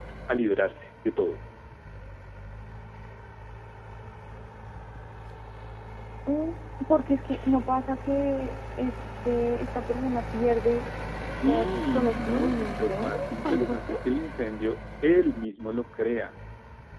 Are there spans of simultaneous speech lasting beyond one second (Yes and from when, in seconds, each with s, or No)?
Yes, from 11.5 s